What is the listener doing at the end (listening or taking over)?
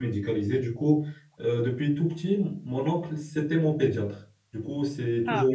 listening